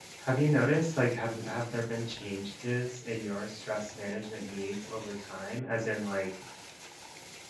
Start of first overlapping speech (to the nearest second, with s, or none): none